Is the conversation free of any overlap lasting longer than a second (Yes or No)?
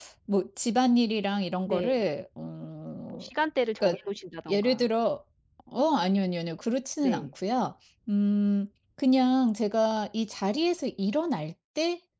Yes